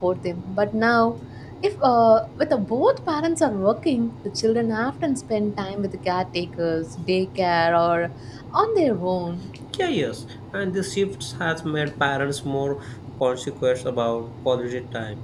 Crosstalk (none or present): none